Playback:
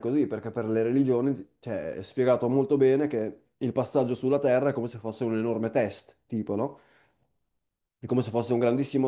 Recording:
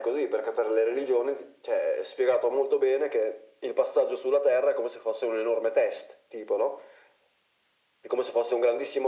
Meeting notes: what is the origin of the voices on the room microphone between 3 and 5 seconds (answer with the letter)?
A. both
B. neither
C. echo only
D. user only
C